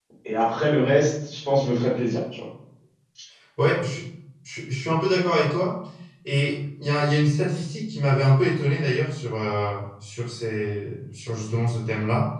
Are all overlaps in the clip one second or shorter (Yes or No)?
Yes